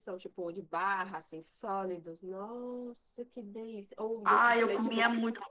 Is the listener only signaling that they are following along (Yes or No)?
No